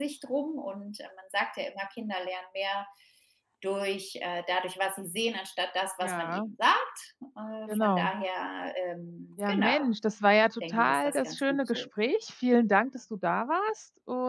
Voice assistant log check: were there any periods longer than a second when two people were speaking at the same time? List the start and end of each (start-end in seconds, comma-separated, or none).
10.6-11.8